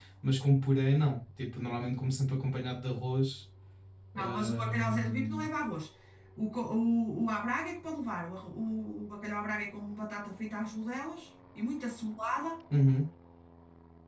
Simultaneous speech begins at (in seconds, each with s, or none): 4.2 s